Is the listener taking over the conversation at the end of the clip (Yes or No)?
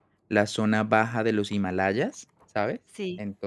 No